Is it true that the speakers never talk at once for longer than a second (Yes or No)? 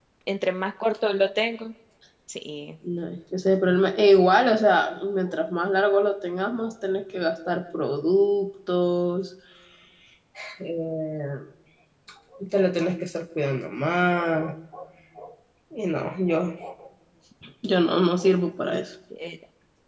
Yes